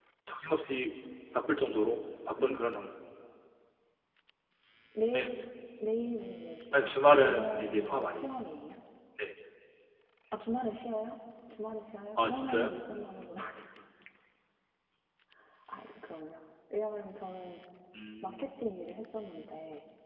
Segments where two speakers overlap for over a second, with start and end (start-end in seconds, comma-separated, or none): 6.7-8.3